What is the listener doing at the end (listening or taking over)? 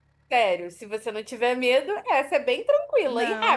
taking over